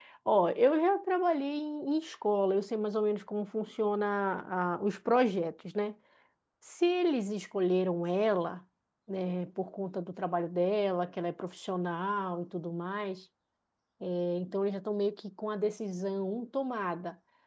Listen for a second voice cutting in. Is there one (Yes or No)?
No